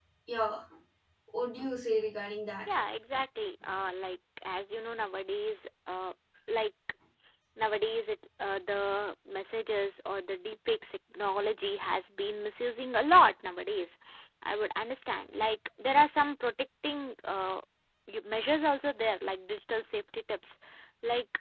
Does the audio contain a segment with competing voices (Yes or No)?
No